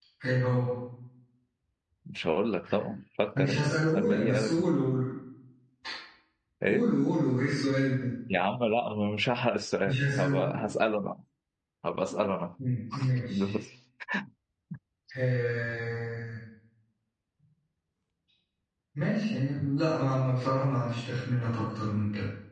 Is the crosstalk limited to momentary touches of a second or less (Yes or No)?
No